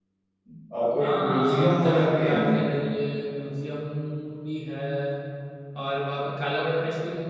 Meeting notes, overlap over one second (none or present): present